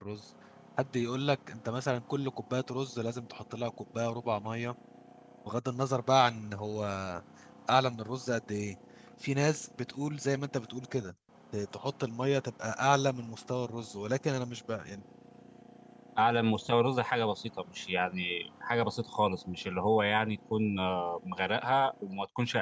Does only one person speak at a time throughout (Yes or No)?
Yes